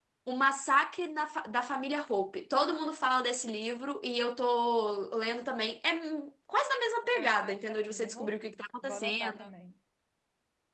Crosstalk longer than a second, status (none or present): present